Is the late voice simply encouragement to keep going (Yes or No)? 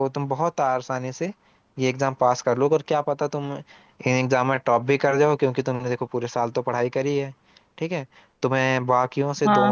No